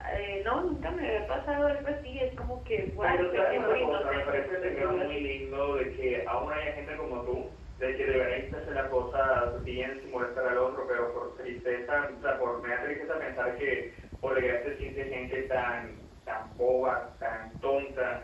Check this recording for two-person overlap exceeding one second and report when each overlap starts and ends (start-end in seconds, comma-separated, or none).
3.0-5.3